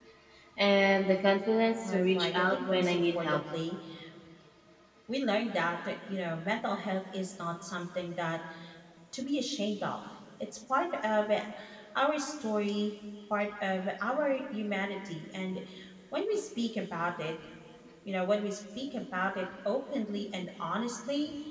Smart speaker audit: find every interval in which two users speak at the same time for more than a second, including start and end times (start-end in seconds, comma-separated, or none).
1.8-3.4